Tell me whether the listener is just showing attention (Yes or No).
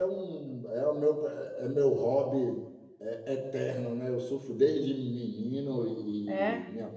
Yes